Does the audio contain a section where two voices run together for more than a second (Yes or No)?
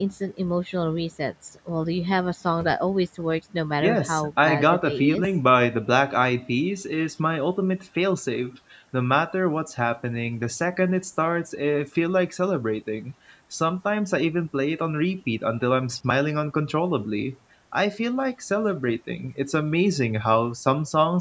Yes